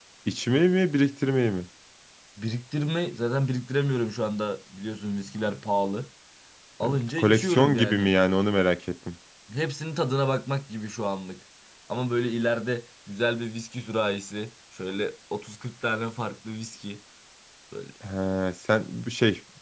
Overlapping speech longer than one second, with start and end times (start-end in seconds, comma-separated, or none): 6.8-8.1